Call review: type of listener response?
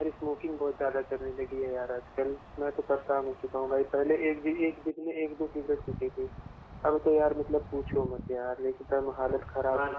taking over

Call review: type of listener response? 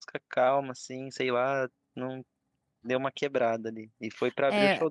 taking over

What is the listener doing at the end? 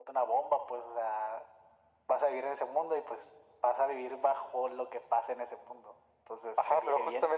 taking over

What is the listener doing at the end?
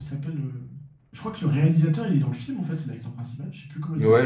taking over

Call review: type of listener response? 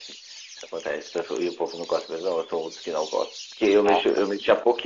listening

